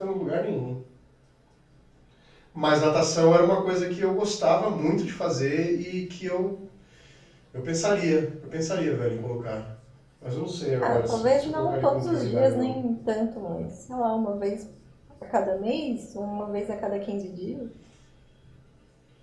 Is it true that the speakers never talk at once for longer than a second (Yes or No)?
No